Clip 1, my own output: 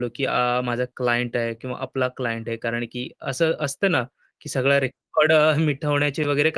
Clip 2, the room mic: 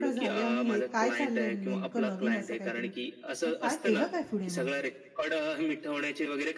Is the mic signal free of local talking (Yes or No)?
No